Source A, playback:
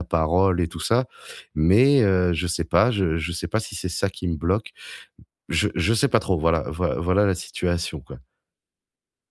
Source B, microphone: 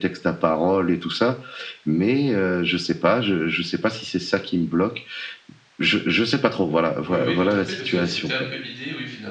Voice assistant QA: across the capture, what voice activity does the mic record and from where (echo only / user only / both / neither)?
both